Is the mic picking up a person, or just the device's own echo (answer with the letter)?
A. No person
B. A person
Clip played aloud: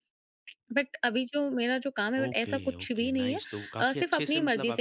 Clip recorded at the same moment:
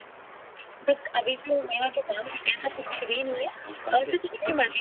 A